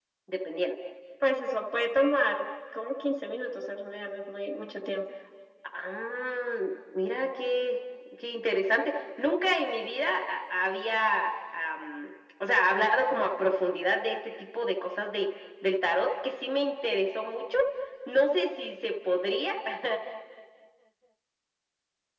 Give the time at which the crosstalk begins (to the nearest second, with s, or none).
none